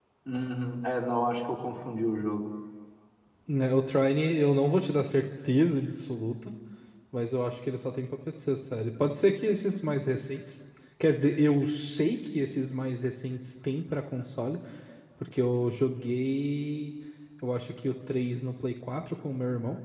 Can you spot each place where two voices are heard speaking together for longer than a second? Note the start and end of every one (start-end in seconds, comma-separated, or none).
none